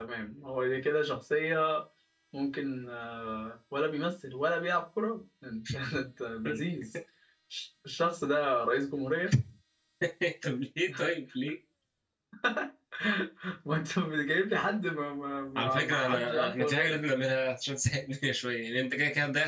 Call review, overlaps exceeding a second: present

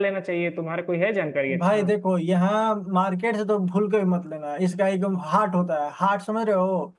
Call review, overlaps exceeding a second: none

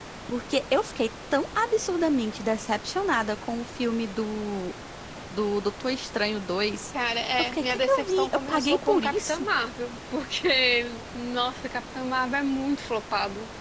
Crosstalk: present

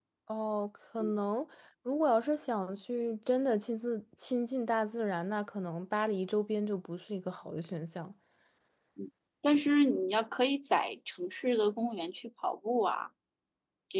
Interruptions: none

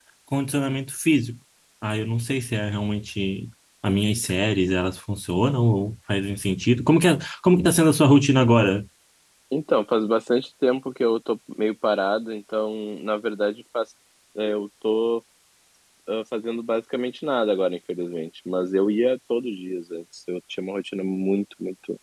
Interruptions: none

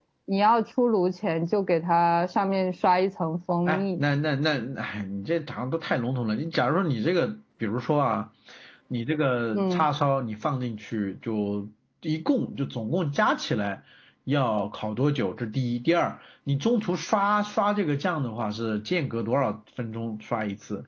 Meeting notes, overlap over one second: none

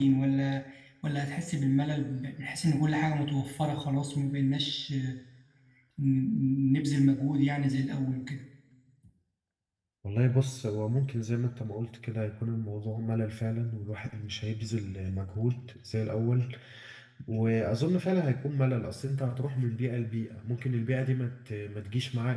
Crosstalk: none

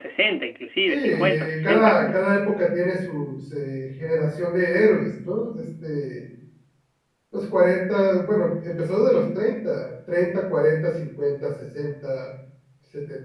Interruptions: present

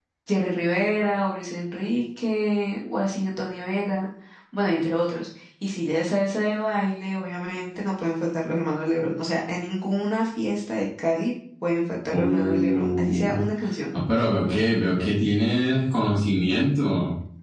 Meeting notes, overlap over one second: present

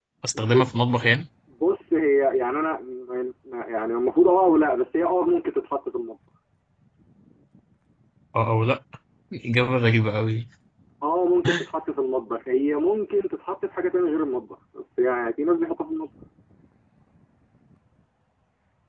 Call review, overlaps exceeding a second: none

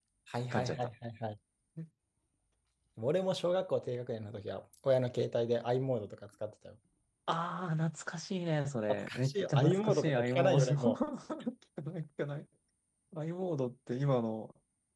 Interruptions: present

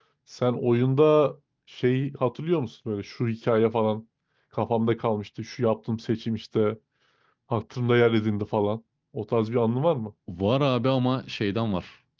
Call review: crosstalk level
none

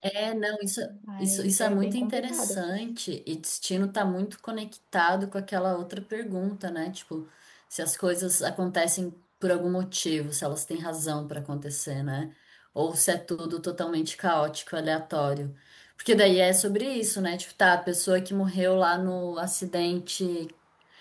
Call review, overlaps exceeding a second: present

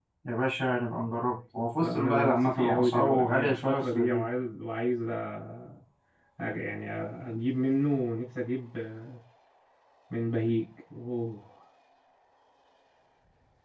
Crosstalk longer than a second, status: present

